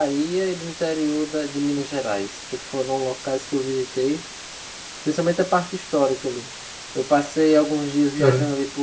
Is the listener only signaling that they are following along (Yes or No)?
Yes